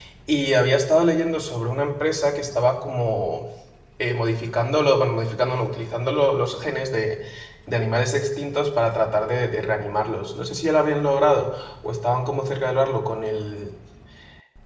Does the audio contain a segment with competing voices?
No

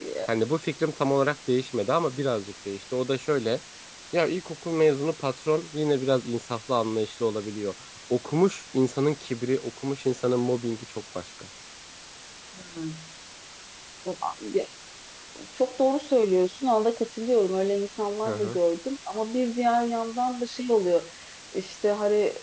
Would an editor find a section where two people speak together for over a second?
No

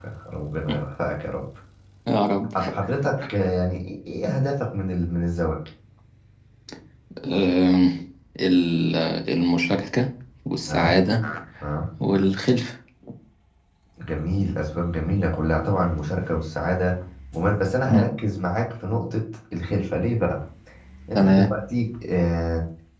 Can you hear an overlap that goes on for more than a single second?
No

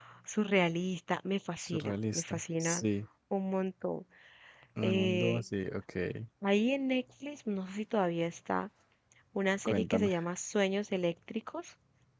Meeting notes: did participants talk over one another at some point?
Yes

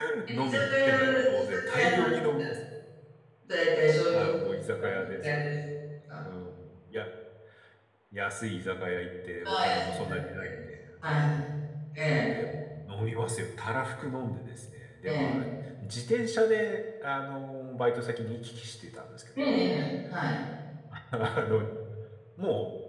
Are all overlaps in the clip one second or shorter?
No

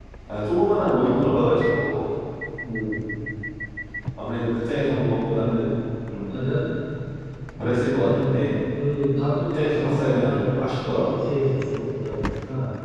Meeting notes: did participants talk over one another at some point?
Yes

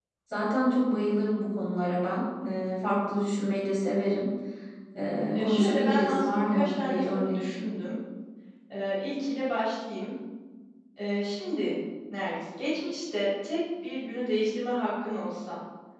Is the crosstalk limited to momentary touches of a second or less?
No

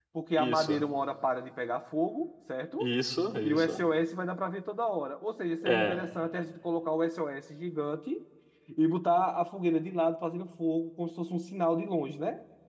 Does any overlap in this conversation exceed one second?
No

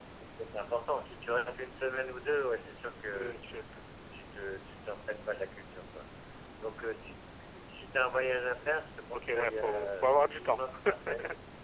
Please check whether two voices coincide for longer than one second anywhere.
Yes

